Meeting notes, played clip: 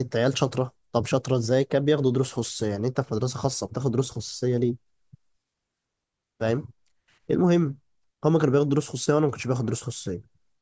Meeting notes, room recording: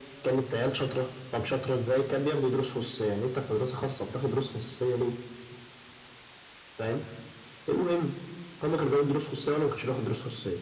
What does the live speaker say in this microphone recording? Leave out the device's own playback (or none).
none